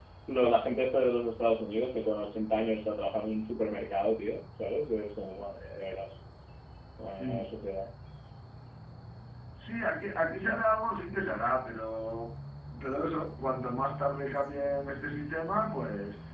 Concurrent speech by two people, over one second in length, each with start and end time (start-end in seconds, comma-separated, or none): none